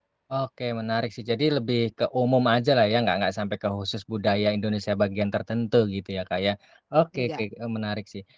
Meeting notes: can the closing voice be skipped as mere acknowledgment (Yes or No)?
Yes